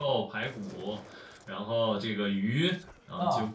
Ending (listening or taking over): listening